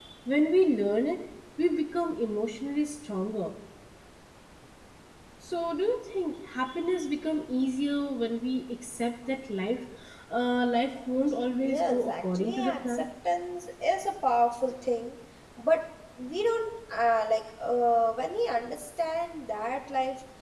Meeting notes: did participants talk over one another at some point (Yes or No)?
Yes